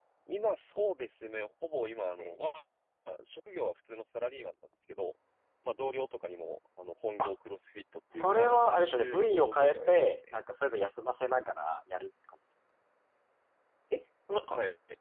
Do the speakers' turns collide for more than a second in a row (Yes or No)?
Yes